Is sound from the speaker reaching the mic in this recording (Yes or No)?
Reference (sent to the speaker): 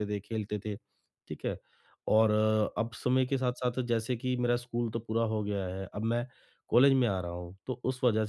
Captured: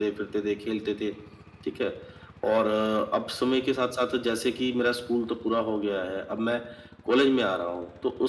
Yes